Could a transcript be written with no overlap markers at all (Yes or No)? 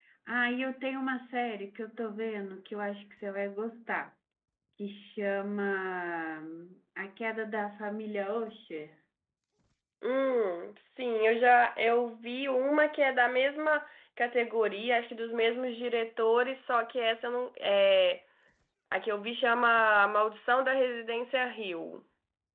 Yes